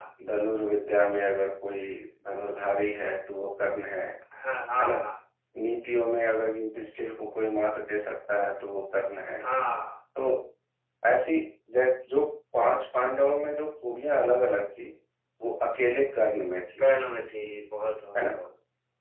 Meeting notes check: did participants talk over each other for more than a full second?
No

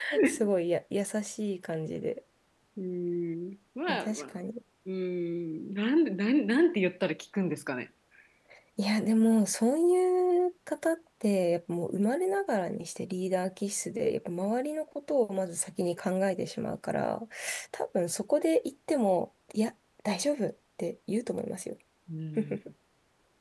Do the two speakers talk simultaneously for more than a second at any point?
No

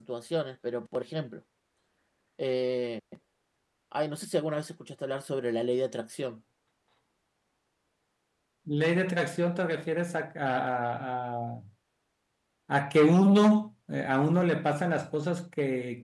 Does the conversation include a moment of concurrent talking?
No

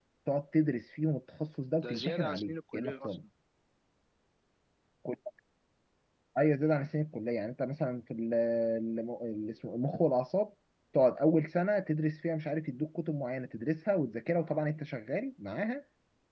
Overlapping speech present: Yes, from 1.8 s

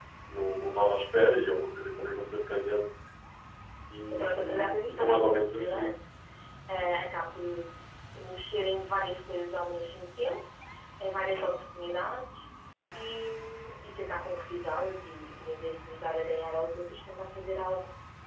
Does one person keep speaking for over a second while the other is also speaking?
Yes, from 4.1 s

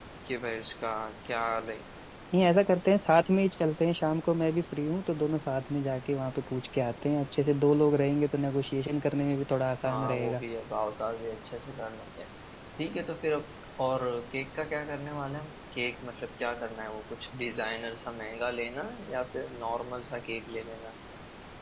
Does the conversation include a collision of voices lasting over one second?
No

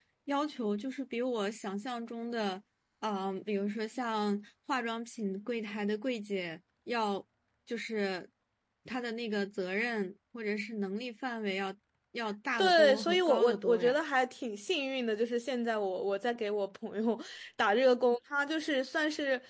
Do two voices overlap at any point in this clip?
Yes, from 12.6 s

